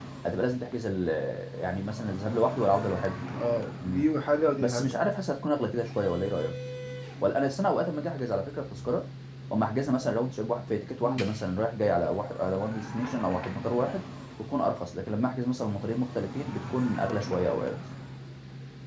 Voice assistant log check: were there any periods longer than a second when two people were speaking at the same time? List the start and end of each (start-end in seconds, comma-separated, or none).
none